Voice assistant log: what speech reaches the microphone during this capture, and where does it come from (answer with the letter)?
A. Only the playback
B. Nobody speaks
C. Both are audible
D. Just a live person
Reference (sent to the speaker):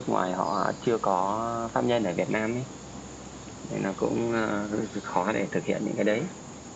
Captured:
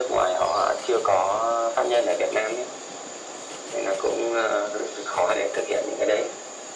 A